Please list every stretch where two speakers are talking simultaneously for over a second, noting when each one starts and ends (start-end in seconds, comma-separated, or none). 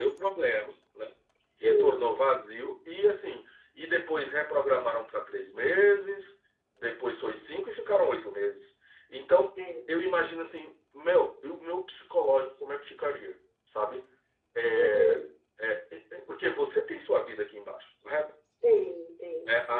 none